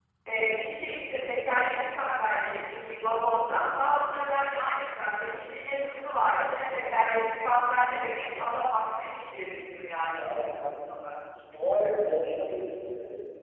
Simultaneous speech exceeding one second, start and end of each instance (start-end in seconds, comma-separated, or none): none